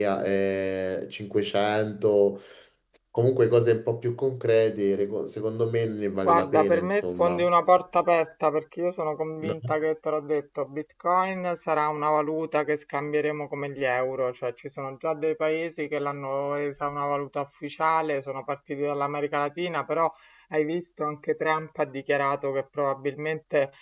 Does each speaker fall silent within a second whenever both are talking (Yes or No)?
No